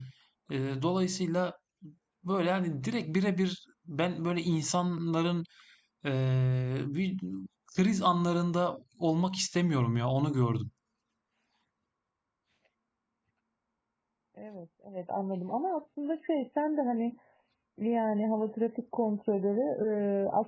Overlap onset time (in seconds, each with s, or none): none